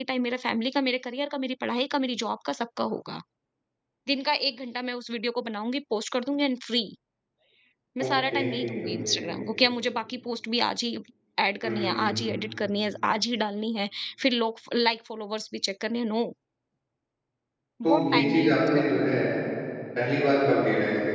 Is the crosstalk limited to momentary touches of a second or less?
No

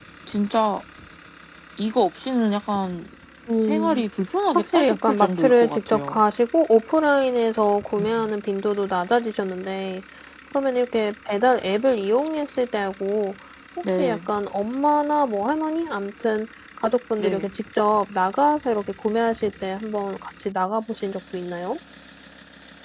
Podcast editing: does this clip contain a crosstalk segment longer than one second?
Yes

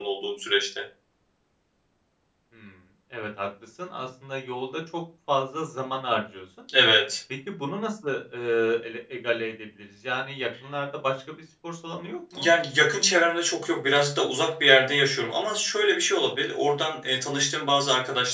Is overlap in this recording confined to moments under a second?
Yes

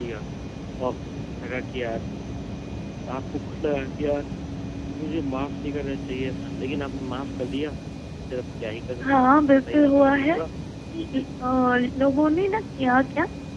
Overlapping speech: Yes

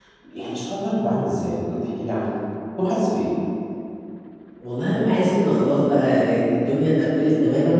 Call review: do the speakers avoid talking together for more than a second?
Yes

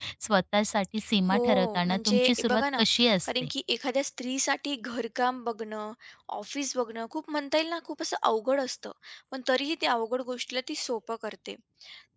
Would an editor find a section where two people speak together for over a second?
Yes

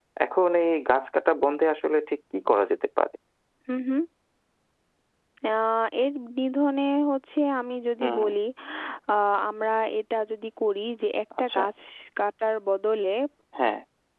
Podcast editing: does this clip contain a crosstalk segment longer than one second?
No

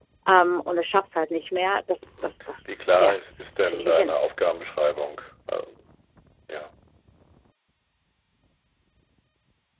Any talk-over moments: Yes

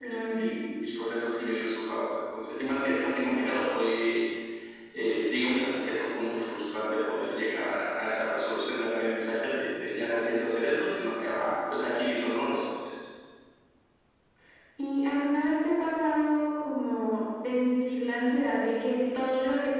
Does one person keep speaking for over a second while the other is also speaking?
No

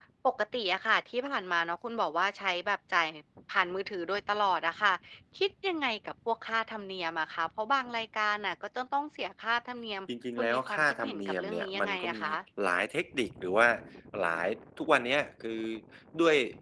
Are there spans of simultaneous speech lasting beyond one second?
Yes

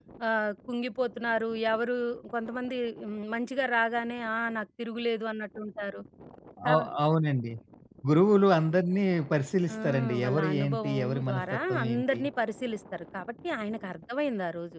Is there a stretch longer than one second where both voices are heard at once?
Yes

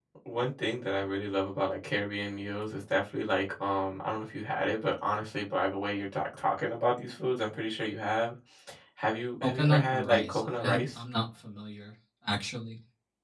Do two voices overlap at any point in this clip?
Yes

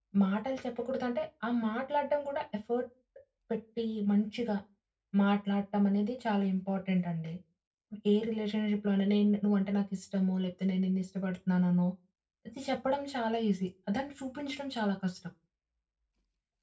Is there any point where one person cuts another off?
No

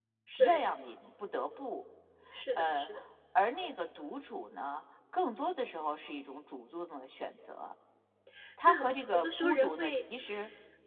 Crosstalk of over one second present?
Yes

